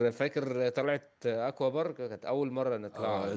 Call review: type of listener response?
taking over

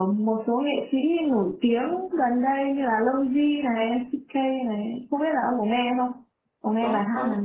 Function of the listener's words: taking over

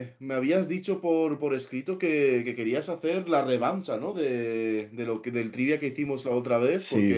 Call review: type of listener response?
taking over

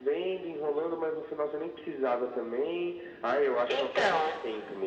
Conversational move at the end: listening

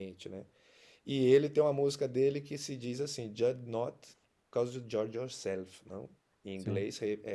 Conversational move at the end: listening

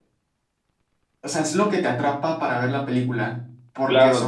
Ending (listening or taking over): taking over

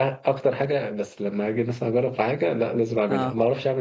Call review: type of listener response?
listening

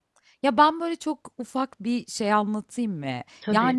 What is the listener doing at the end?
listening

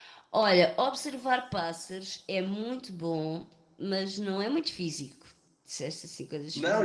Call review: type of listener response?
taking over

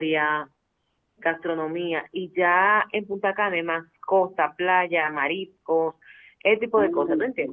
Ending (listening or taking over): taking over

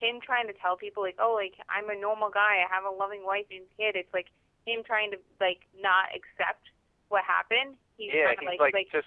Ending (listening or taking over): taking over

